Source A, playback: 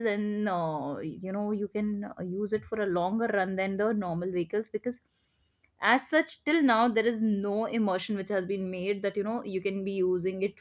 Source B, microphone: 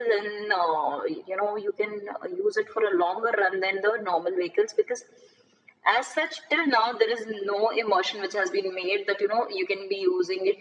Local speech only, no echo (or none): none